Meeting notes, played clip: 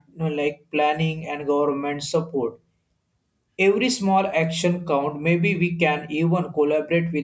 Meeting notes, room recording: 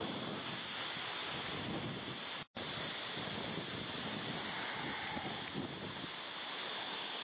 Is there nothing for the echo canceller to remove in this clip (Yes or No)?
Yes